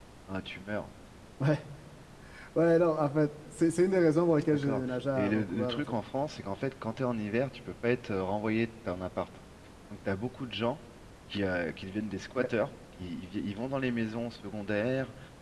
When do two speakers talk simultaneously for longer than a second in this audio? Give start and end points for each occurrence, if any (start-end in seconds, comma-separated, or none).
4.5-6.0